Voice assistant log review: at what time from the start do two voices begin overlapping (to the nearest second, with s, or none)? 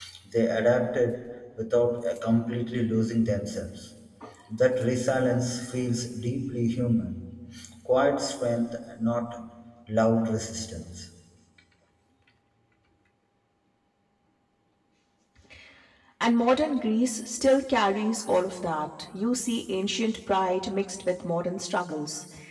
none